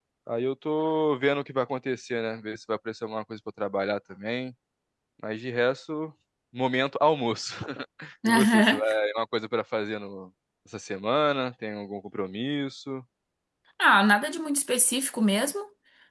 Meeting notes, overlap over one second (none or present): none